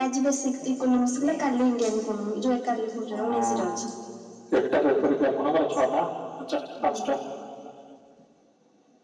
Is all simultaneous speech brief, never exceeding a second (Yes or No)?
Yes